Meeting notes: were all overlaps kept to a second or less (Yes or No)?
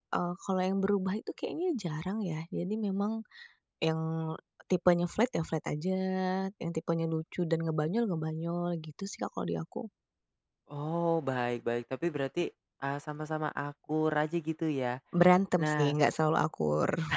Yes